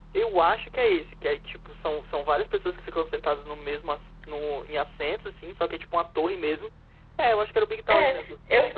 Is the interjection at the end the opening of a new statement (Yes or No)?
Yes